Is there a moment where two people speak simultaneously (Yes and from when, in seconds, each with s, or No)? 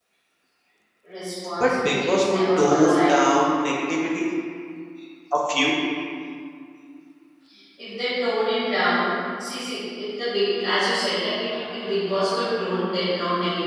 Yes, from 1.6 s